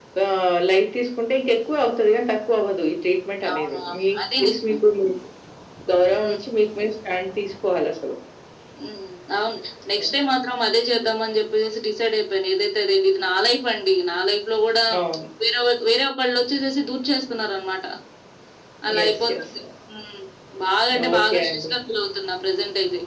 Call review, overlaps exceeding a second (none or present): present